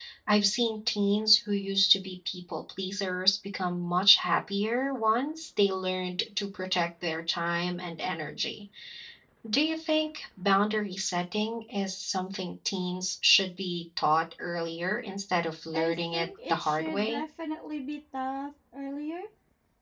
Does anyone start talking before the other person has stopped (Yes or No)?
Yes